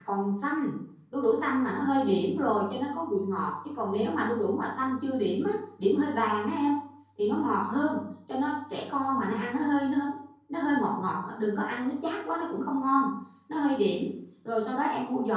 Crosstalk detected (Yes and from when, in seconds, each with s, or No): No